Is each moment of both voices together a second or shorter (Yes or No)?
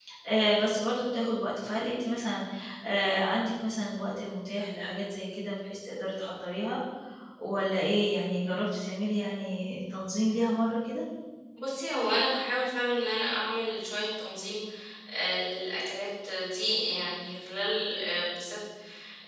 Yes